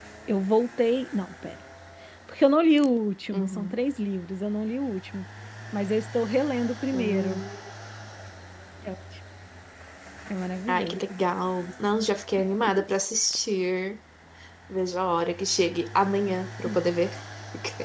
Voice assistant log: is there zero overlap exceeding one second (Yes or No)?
Yes